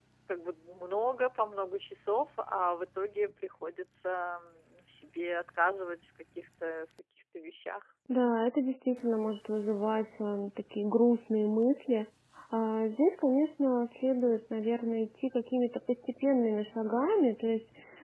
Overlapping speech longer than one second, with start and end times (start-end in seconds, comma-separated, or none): none